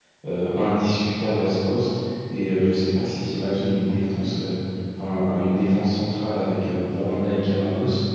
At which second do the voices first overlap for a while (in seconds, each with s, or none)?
none